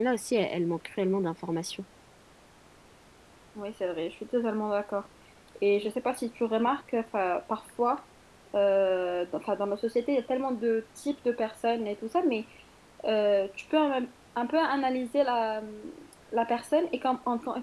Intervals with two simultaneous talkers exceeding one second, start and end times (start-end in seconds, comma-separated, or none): none